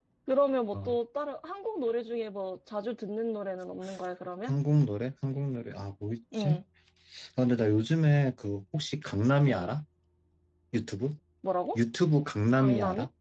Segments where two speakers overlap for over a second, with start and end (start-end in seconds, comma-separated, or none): none